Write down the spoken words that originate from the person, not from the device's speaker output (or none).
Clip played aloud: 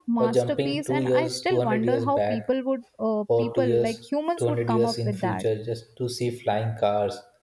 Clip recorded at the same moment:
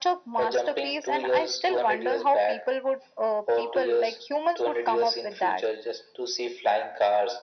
none